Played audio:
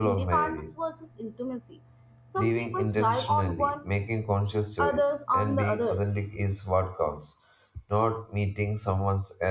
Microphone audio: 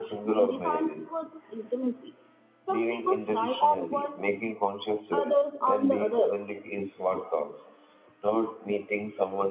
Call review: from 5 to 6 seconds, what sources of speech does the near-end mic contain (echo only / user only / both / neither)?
echo only